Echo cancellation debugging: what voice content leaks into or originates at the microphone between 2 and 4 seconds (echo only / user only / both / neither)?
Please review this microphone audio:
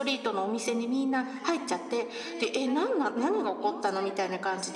both